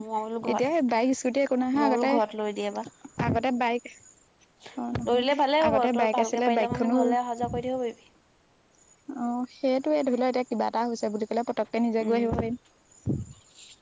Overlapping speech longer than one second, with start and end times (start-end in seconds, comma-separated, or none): 5.6-7.0